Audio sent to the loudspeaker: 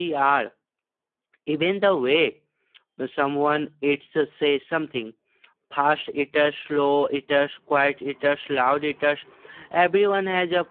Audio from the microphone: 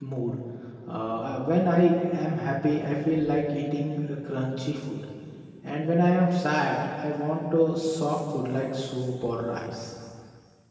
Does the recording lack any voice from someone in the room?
No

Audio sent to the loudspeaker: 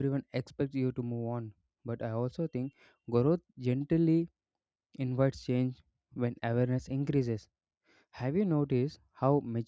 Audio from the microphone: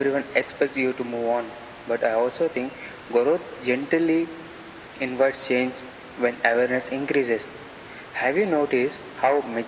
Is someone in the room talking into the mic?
No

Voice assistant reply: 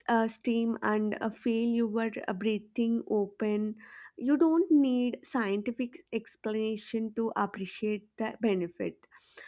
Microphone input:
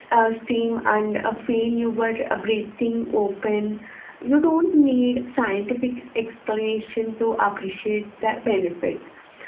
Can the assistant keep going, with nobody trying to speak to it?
Yes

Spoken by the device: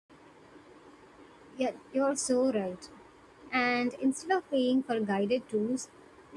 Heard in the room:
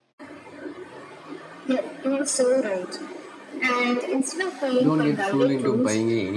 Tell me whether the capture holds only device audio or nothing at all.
No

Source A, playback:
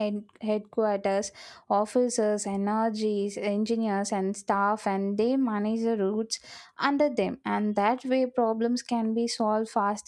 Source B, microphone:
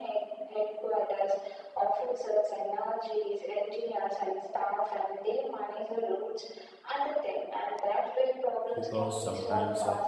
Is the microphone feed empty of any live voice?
No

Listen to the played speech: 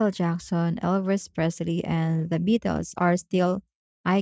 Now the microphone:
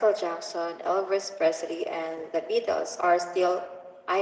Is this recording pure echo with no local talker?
Yes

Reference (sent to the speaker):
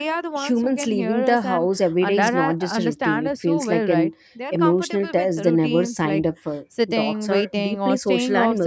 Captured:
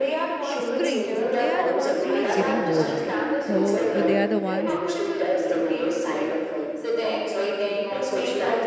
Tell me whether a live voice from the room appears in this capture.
Yes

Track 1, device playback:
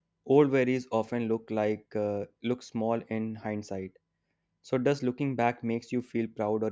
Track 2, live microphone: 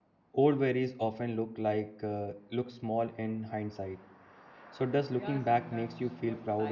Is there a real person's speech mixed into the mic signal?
Yes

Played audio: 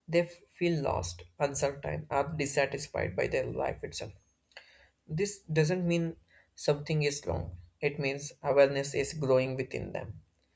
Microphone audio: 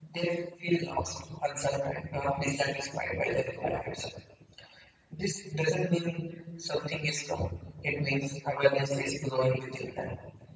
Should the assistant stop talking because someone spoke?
No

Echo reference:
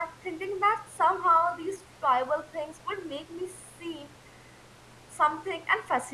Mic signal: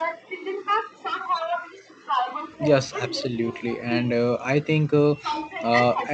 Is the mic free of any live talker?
No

